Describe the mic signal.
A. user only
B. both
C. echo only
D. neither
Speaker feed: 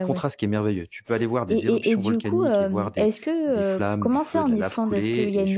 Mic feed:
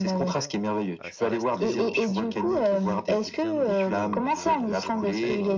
B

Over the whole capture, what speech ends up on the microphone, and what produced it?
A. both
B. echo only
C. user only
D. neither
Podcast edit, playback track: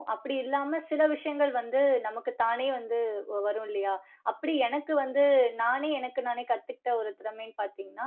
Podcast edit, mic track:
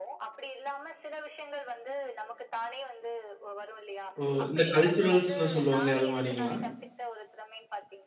A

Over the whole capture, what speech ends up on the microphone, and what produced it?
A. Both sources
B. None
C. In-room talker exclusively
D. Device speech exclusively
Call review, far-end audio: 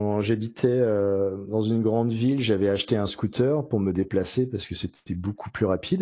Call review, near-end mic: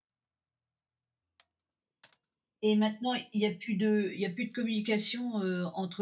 C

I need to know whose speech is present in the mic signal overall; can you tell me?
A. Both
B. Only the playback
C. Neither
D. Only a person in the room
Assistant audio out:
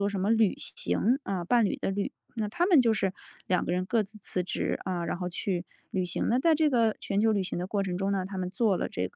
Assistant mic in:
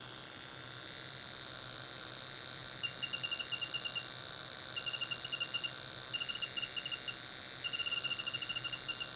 C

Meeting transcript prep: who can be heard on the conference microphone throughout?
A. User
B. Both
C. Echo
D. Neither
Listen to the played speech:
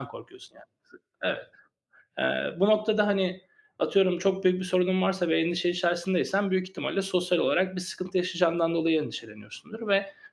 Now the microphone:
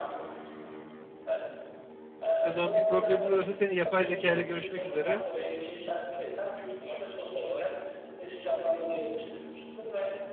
B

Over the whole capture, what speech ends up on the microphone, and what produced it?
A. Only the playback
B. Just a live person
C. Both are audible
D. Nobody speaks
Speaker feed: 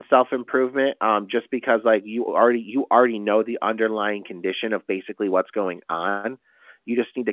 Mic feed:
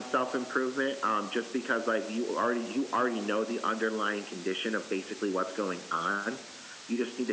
A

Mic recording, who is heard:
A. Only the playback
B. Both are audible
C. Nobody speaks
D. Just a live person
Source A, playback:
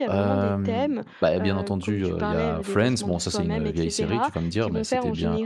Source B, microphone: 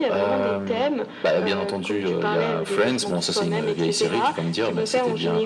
A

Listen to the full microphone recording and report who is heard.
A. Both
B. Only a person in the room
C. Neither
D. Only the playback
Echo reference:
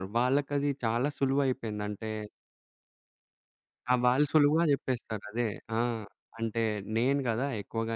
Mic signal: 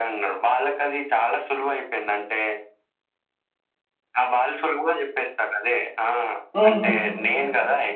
A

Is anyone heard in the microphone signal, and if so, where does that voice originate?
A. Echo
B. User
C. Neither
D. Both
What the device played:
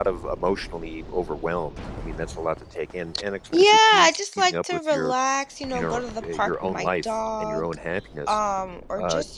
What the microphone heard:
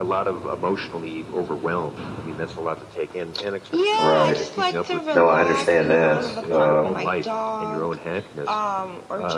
D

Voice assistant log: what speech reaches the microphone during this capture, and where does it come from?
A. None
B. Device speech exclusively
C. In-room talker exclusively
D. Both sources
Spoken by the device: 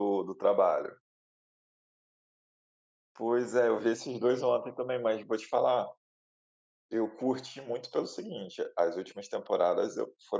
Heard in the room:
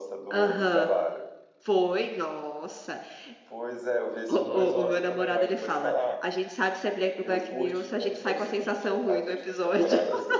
D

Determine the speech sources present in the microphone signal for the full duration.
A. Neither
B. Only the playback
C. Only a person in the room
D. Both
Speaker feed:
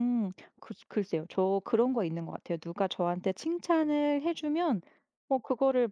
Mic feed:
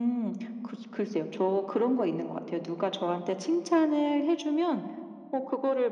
B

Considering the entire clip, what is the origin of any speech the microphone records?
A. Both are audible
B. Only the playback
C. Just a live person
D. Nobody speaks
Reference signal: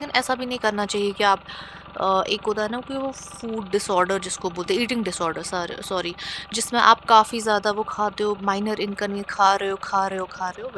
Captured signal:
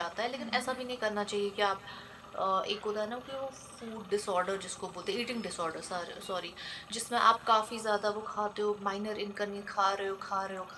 A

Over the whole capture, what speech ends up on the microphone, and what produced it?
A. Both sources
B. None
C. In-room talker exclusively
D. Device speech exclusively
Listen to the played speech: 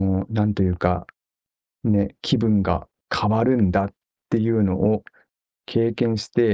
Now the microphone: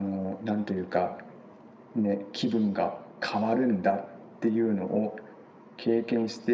D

